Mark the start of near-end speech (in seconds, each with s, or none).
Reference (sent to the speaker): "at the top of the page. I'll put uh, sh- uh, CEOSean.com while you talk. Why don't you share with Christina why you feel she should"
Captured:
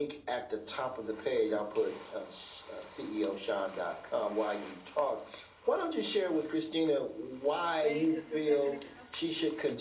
7.7 s